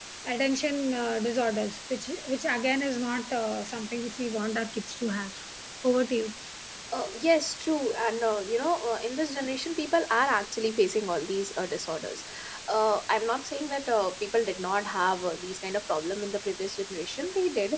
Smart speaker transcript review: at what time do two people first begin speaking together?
none

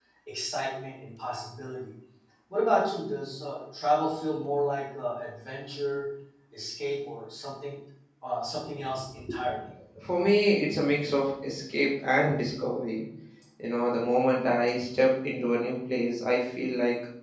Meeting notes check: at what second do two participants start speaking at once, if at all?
none

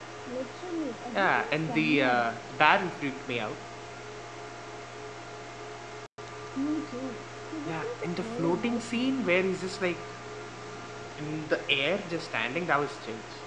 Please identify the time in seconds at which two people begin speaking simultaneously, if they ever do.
1 s

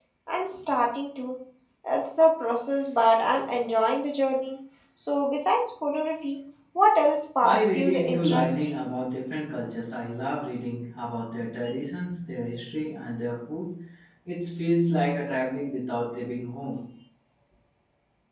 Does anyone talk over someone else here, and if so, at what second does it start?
7 s

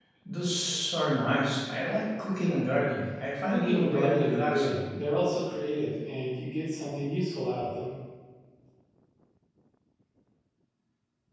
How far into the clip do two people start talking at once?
3 s

